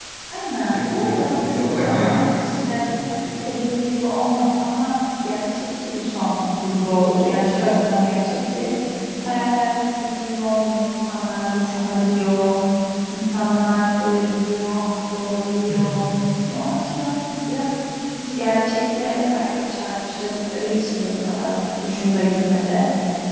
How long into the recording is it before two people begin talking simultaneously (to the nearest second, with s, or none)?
1 s